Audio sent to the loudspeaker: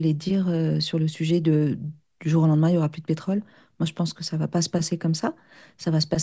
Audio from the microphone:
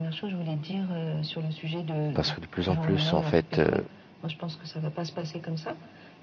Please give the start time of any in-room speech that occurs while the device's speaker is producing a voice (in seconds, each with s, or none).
2.1 s